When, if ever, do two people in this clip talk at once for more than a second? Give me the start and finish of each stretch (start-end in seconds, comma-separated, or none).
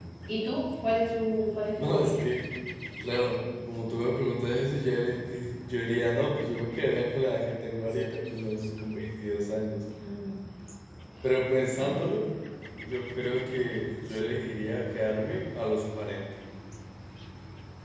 none